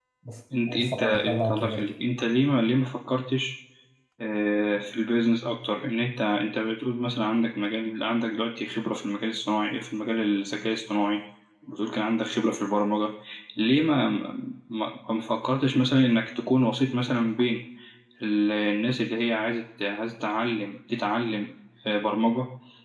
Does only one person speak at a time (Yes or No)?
No